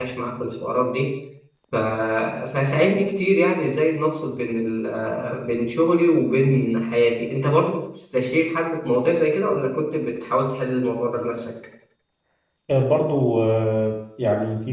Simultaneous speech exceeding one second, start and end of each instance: none

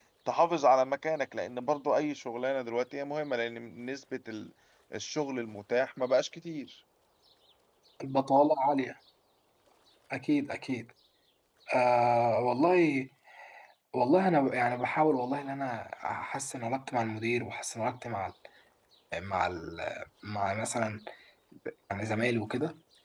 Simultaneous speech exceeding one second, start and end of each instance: none

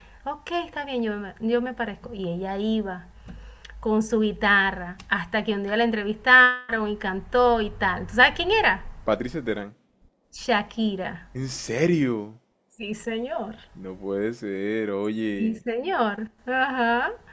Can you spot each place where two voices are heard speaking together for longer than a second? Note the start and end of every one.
none

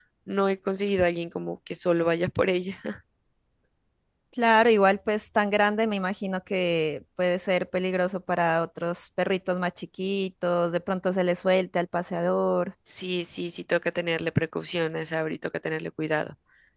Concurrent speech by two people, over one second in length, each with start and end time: none

